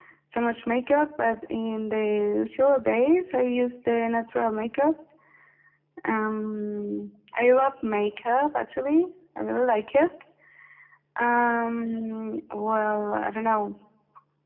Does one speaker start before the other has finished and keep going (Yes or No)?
No